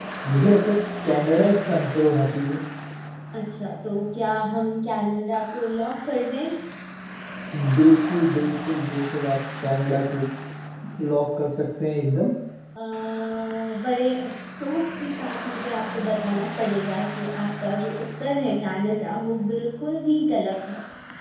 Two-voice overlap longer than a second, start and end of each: none

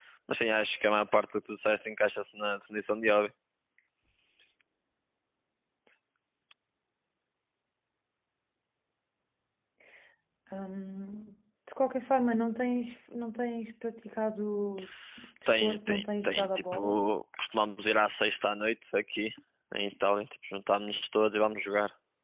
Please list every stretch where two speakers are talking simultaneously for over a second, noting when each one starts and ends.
15.6-17.0

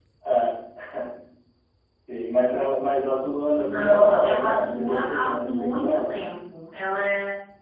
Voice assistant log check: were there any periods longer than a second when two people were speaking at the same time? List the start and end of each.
3.6-6.1

